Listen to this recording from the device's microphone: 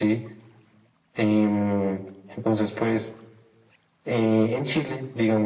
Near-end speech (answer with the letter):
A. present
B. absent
B